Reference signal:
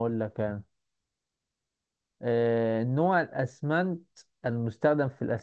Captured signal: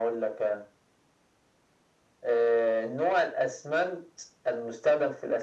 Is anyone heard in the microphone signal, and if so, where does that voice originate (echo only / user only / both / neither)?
echo only